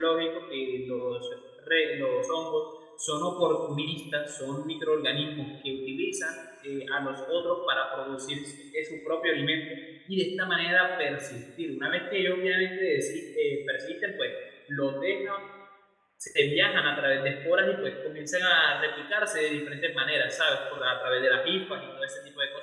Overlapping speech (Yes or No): No